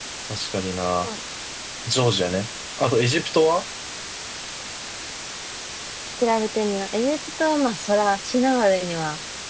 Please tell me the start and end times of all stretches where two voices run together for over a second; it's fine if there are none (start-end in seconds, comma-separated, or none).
none